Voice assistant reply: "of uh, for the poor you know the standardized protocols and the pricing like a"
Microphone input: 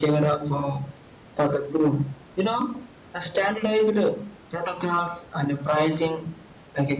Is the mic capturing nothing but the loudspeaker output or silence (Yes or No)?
Yes